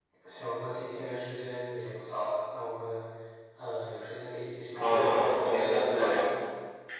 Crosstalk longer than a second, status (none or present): present